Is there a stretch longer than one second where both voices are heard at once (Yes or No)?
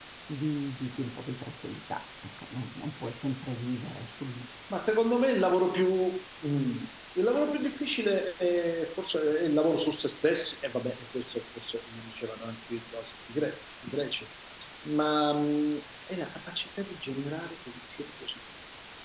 No